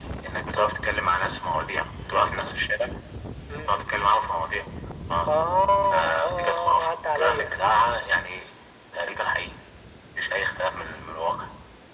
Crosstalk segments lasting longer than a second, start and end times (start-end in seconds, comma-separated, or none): 5.9-7.5